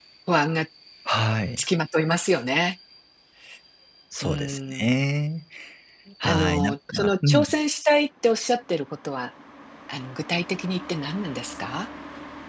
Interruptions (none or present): present